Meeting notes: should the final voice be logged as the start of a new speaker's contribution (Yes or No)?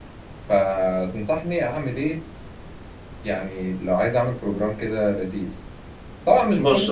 No